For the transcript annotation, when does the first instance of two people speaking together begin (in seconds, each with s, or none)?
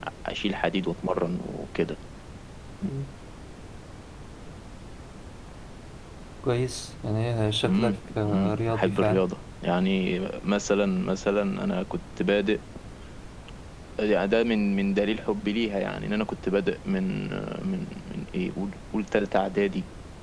7.6 s